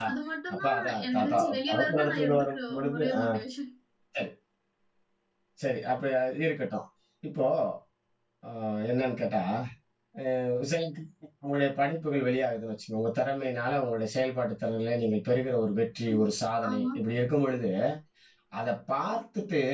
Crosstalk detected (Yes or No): Yes